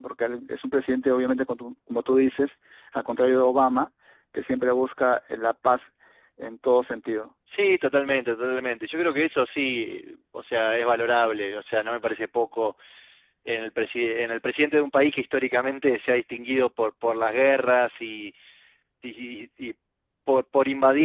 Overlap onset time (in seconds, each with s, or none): none